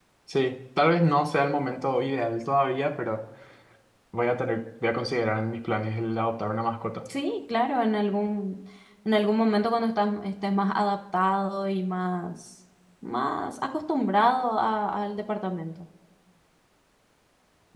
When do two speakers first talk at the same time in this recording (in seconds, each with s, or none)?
none